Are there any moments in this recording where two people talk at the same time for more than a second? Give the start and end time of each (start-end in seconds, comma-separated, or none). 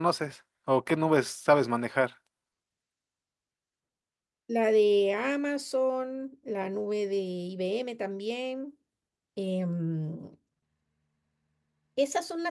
none